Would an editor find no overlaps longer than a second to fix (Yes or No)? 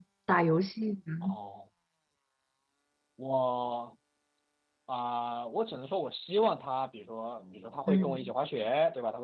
Yes